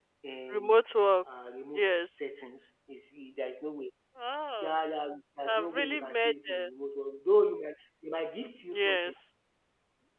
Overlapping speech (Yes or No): Yes